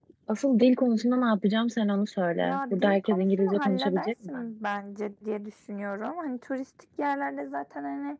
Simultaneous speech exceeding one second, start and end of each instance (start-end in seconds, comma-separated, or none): 2.4-4.4